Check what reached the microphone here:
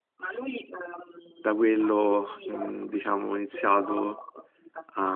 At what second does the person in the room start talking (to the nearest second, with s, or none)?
1 s